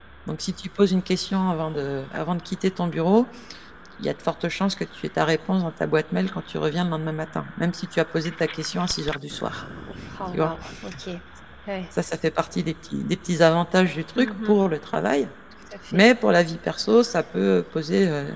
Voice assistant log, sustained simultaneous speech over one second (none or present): none